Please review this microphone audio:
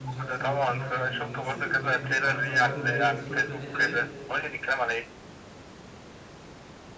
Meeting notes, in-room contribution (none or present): present